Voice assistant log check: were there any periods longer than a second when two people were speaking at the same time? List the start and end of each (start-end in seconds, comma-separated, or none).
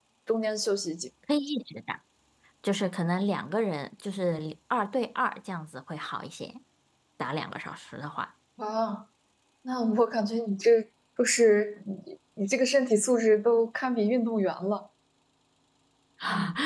none